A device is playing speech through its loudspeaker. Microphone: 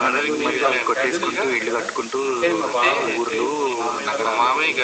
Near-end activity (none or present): present